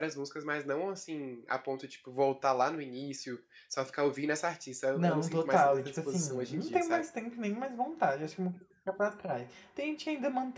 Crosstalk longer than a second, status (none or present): present